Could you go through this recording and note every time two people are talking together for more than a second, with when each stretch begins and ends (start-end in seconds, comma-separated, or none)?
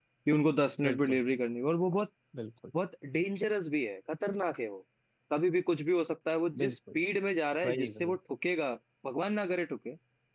none